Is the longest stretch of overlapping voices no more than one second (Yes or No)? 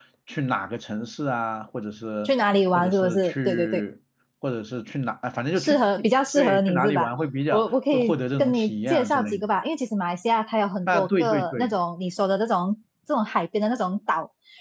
No